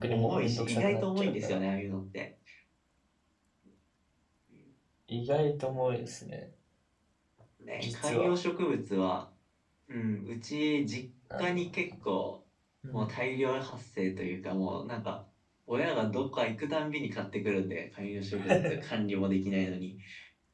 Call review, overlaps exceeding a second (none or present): present